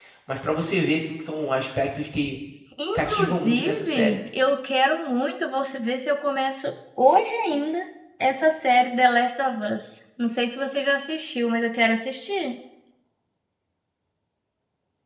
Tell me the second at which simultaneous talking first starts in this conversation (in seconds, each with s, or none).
3.0 s